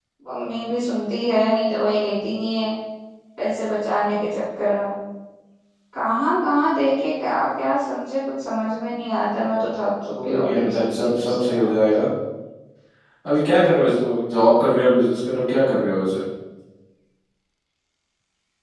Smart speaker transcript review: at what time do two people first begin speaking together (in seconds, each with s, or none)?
10.2 s